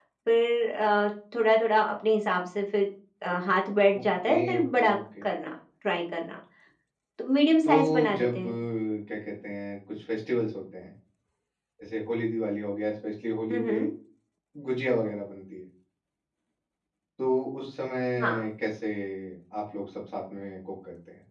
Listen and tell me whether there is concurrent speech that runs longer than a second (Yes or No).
Yes